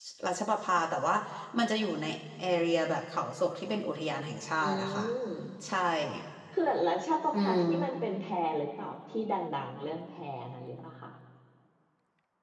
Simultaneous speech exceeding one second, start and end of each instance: none

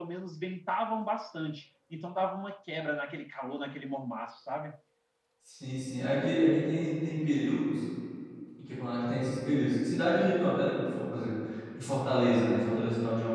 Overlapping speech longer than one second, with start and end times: none

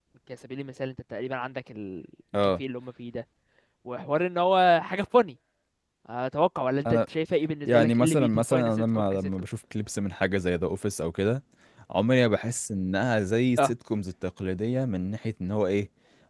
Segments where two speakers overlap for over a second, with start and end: 7.6-9.3

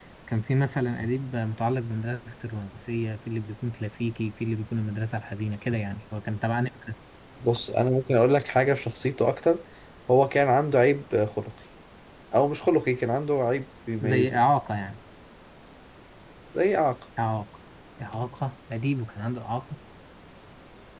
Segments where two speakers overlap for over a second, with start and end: none

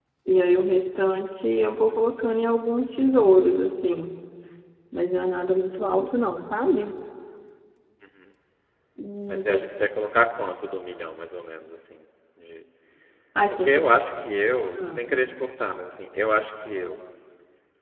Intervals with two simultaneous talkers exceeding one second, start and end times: none

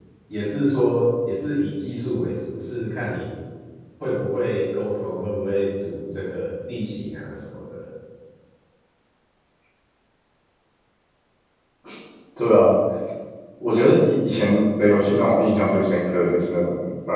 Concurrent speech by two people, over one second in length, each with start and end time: none

